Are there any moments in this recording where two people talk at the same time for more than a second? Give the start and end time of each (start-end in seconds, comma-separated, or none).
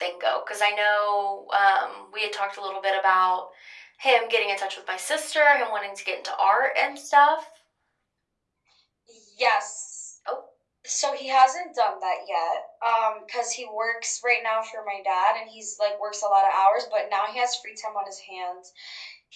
none